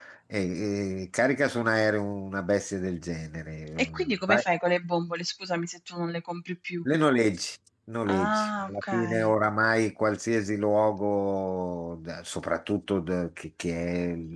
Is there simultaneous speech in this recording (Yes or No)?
Yes